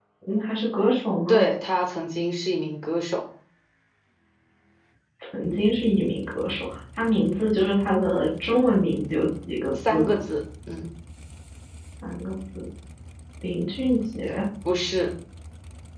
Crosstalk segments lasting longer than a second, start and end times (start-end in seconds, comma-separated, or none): none